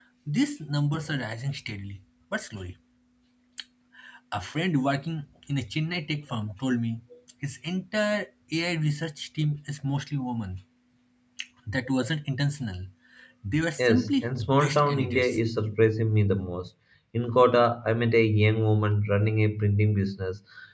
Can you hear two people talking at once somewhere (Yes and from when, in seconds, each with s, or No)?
Yes, from 13.8 s